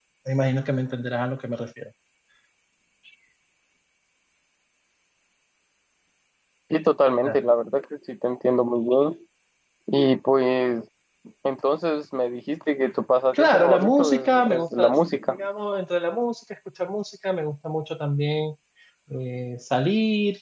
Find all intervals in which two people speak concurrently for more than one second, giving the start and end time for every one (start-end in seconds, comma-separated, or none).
13.3-14.9